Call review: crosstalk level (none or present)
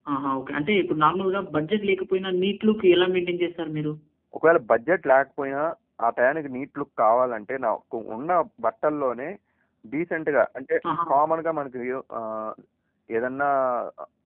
none